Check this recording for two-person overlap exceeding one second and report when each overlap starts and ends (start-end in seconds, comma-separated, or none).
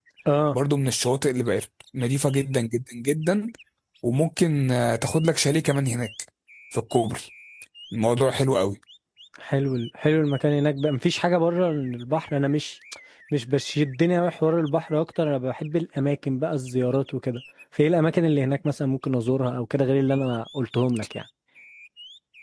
none